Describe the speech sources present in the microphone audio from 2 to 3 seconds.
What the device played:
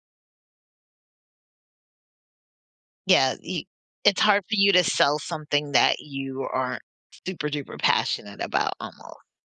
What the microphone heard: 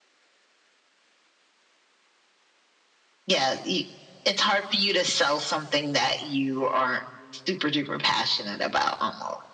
neither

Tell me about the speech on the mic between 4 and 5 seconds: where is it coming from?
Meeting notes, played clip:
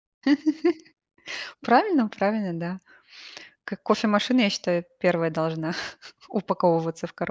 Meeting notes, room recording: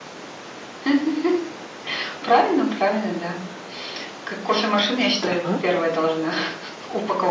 echo only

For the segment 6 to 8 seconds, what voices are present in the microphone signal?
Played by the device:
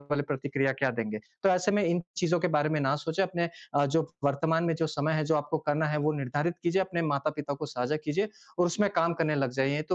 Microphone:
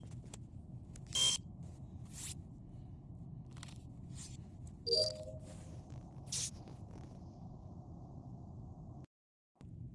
neither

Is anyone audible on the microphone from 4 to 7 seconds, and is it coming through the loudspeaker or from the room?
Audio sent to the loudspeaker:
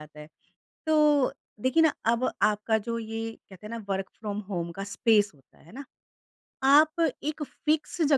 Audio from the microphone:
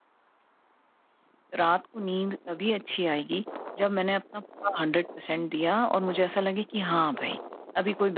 user only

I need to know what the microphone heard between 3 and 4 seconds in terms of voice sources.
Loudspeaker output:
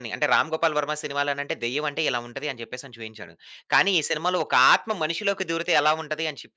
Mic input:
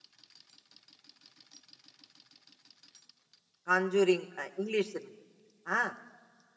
user only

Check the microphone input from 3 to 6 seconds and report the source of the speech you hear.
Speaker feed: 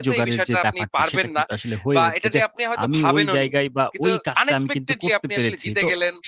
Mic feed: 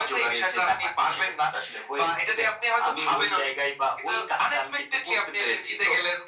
echo only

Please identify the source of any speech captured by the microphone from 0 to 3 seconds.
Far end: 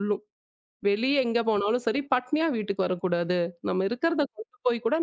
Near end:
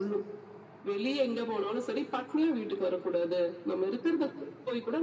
echo only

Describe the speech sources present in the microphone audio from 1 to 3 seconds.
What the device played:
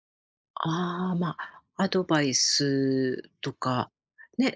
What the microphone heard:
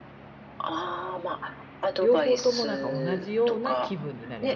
both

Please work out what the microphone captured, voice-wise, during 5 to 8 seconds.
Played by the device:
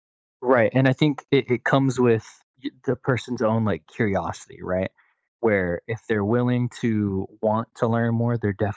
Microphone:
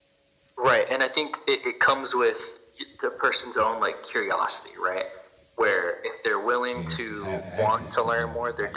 both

